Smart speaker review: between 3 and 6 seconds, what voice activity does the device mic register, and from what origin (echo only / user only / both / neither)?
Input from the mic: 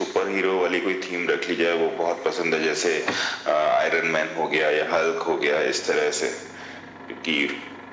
echo only